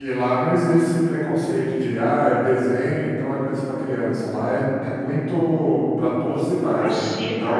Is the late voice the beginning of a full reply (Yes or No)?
Yes